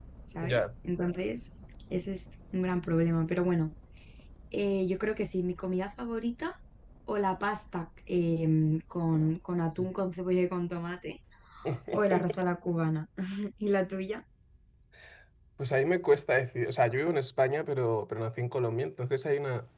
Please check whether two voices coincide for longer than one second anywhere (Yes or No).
No